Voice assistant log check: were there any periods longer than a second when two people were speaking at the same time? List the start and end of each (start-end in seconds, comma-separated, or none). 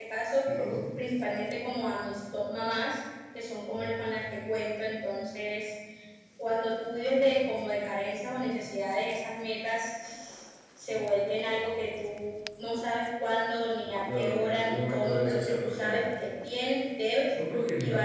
14.2-16.0